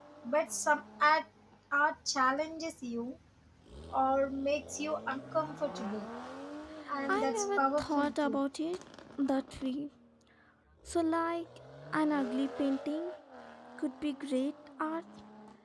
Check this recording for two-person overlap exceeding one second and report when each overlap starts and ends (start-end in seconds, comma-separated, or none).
7.1-8.4